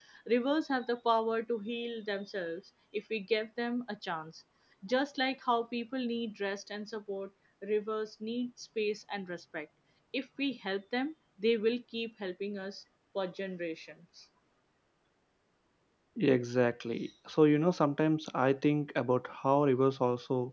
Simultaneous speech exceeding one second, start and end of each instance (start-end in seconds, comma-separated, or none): none